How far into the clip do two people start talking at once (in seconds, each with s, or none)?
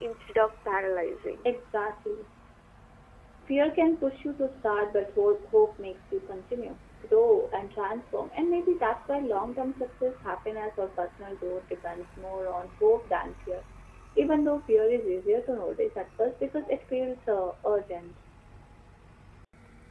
none